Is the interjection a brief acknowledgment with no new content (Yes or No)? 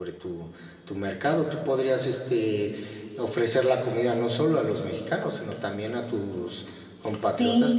No